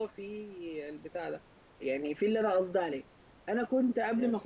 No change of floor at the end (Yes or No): Yes